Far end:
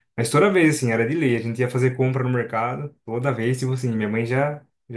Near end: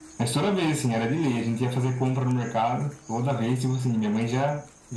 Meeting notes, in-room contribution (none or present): none